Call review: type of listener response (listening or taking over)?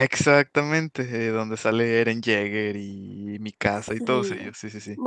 taking over